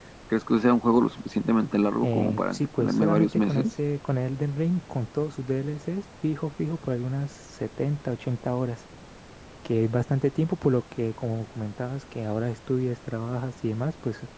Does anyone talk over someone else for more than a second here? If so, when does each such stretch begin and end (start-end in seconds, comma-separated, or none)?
2.0-3.7